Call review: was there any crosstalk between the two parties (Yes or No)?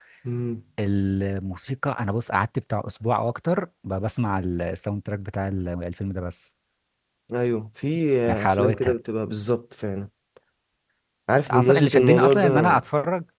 Yes